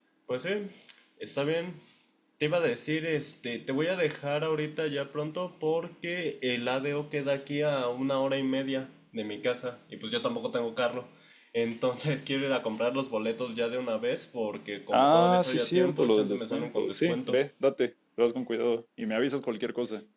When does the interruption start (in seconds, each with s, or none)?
14.9 s